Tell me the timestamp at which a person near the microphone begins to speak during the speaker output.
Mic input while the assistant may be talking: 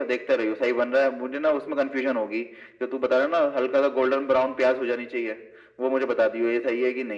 none

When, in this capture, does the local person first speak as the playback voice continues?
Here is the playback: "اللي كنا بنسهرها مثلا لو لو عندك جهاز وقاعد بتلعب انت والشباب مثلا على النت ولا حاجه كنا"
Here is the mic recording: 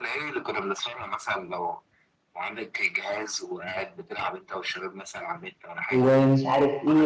5.9 s

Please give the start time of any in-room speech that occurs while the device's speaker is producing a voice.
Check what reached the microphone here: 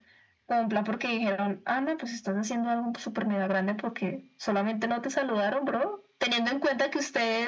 none

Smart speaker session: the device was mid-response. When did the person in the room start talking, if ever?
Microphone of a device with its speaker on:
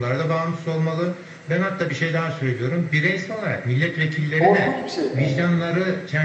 4.4 s

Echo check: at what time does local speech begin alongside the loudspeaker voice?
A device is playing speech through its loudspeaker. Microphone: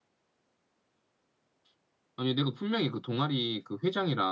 none

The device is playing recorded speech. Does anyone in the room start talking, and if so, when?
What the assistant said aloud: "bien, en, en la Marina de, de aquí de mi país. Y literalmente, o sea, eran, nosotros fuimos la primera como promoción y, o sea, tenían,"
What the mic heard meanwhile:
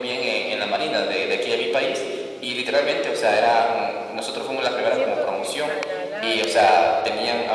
4.8 s

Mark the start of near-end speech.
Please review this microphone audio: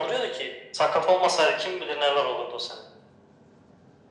none

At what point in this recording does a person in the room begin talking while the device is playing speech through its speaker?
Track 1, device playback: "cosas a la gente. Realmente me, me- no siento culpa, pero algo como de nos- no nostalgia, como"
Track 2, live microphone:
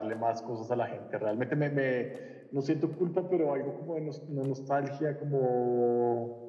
none

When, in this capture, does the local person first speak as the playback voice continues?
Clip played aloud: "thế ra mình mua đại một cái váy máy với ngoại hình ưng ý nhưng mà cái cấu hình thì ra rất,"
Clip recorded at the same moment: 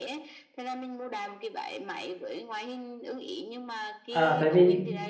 4.1 s

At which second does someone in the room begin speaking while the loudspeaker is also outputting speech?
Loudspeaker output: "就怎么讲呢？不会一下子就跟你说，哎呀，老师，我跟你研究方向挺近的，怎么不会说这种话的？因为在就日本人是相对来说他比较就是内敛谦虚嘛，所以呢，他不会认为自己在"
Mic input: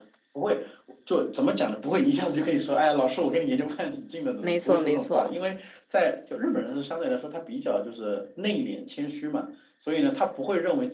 4.4 s

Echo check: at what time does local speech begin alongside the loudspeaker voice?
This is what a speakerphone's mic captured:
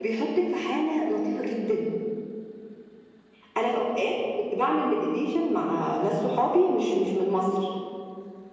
none

